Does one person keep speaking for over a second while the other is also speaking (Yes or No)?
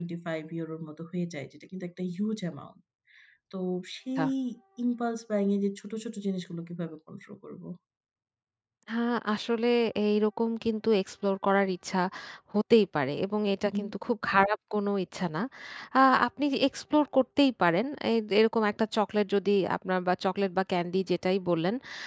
No